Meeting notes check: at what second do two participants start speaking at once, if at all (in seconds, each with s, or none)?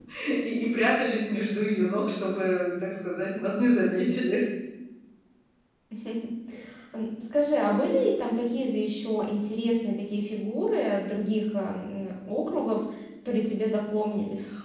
none